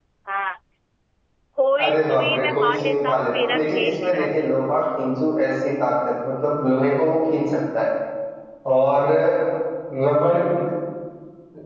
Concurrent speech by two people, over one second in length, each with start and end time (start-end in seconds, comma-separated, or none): 1.8-4.4